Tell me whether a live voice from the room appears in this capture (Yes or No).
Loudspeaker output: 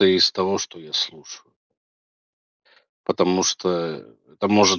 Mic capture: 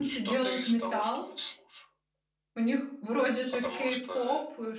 Yes